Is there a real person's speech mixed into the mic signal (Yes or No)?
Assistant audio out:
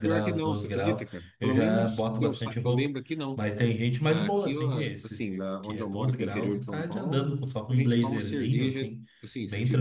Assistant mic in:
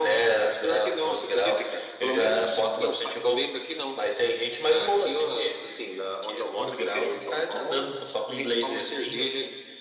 No